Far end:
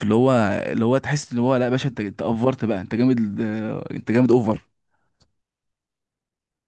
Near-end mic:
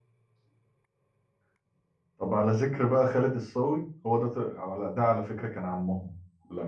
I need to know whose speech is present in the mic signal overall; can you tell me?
user only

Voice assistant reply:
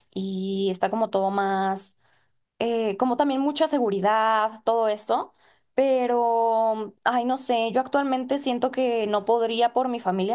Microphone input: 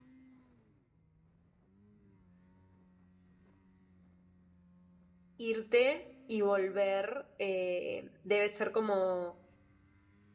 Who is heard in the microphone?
user only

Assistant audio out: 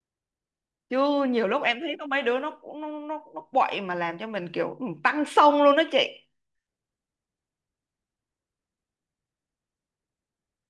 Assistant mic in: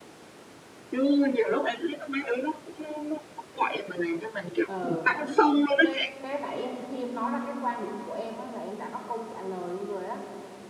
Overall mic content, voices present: both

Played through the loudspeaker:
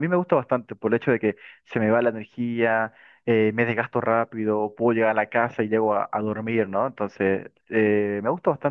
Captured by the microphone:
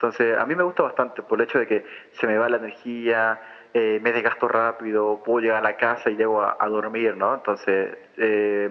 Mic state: echo only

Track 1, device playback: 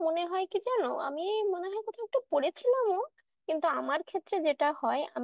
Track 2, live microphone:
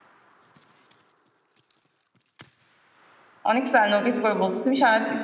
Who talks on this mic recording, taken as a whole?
user only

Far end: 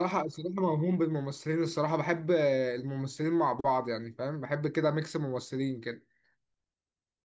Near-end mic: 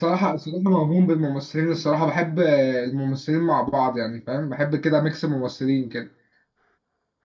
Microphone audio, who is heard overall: echo only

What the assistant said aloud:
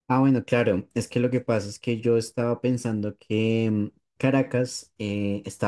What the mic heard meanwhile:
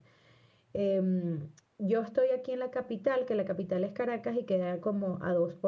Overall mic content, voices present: user only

